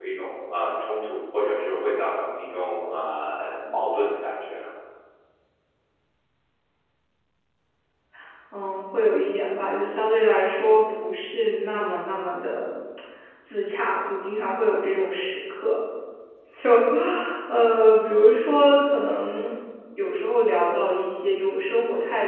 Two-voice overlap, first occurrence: none

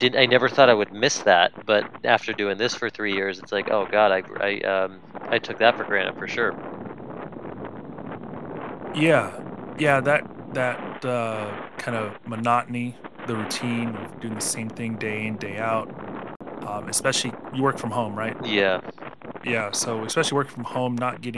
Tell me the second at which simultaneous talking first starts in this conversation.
none

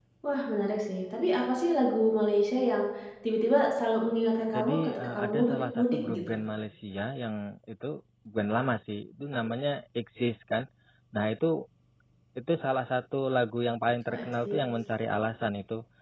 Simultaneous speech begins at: 4.5 s

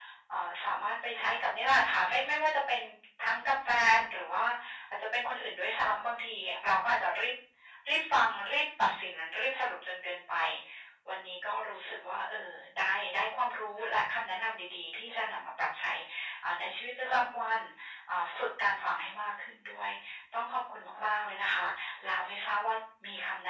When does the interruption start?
none

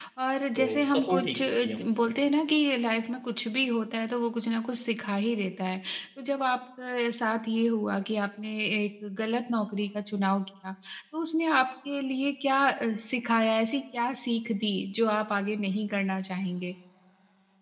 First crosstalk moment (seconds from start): 0.6 s

